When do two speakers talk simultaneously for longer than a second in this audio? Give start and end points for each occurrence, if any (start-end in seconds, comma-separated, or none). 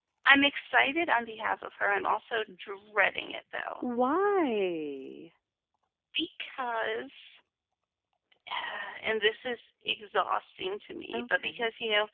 none